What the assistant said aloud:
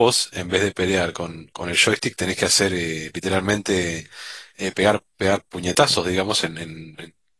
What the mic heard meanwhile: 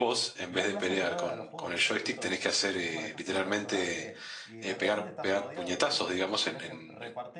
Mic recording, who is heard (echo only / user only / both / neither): both